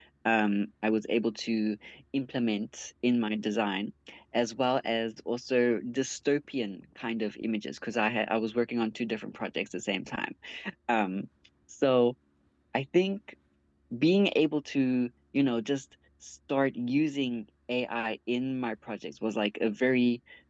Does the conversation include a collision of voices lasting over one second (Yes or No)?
No